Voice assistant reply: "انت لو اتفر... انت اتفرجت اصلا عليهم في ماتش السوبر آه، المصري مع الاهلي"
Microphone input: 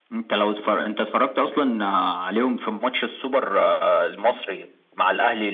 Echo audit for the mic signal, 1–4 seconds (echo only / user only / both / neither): echo only